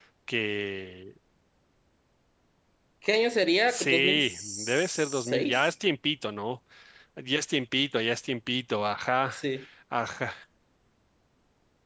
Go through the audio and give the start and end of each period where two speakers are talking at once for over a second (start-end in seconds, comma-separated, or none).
3.7-5.7